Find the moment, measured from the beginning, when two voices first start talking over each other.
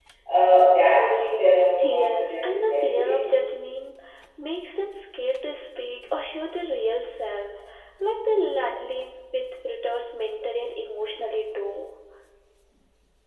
1.8 s

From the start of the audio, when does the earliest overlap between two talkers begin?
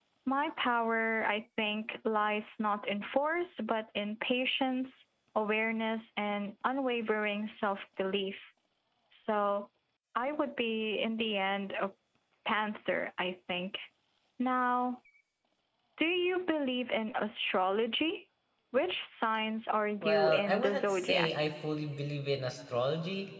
20.0 s

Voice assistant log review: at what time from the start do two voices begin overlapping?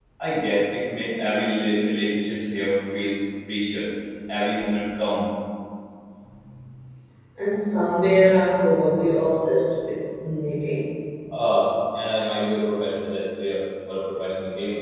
none

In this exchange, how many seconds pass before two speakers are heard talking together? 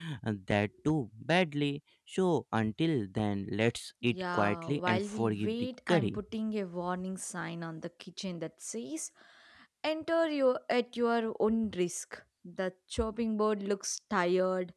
4.0 s

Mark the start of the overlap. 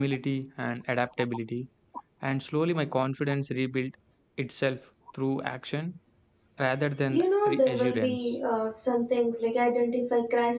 7.1 s

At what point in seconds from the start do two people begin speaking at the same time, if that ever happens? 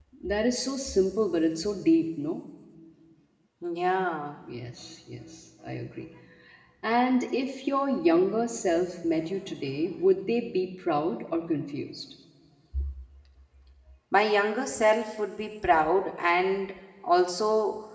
none

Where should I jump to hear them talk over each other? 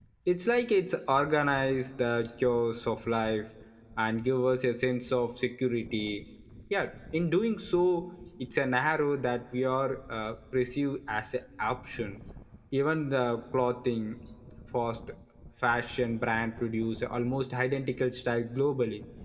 none

